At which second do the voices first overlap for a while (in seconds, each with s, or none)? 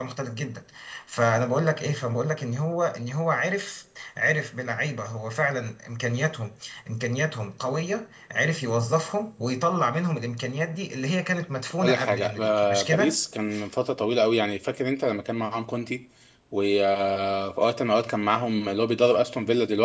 11.8 s